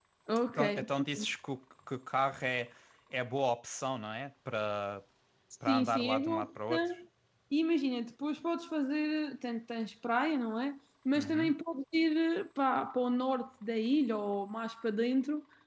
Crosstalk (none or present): present